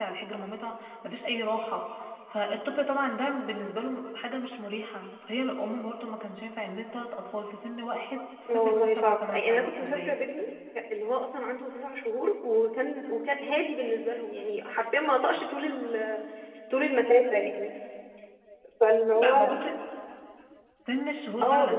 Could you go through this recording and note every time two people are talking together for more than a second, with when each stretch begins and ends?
8.5-10.2

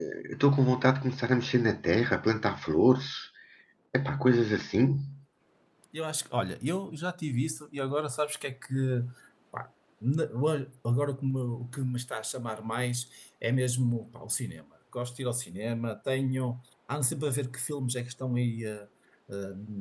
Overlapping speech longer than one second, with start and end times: none

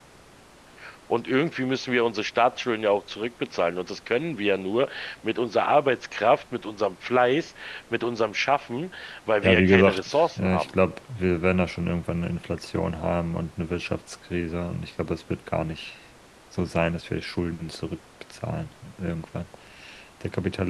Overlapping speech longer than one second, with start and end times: 9.4-10.7

